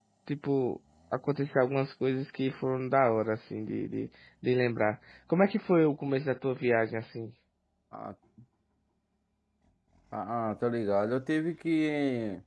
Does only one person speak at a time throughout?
Yes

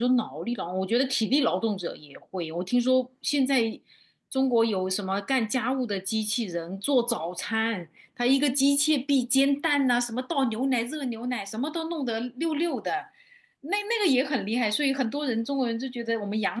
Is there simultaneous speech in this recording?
No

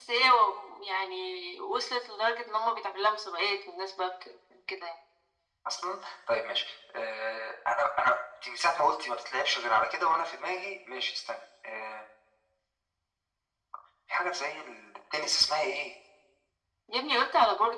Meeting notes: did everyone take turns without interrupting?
Yes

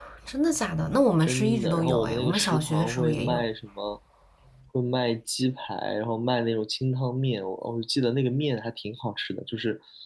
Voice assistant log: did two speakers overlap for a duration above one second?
Yes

